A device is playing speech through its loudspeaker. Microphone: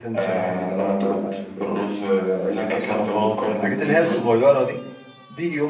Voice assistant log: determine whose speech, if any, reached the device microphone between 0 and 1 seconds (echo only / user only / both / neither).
both